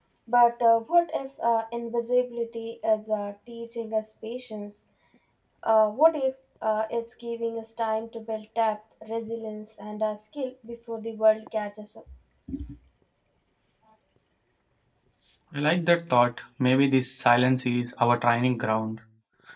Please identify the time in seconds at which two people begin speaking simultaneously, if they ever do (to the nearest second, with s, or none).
none